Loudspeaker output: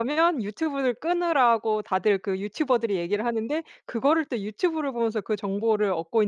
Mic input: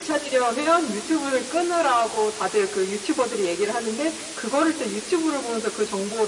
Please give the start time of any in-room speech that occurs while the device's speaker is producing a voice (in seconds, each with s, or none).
none